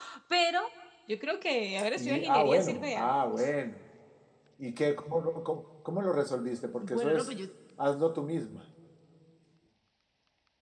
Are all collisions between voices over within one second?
No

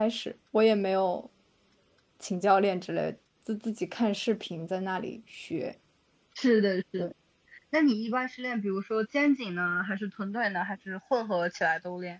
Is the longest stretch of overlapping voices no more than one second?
Yes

